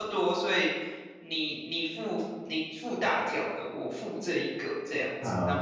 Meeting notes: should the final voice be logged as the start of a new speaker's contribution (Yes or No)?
Yes